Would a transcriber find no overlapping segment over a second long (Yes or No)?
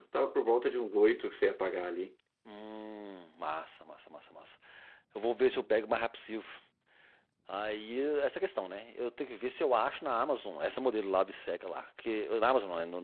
Yes